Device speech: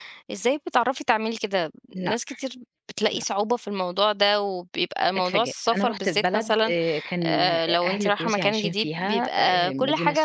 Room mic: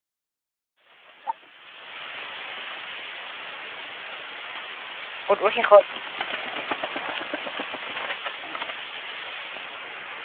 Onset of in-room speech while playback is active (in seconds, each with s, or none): 5.3 s